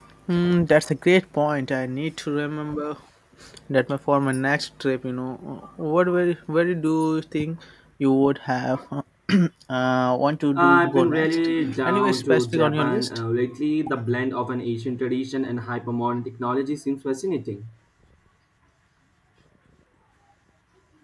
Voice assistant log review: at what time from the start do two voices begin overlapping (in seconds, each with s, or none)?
10.6 s